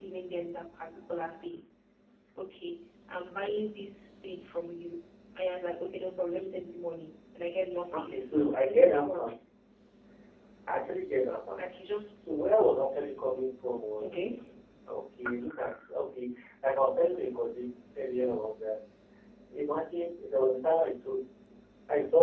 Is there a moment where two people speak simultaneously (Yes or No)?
Yes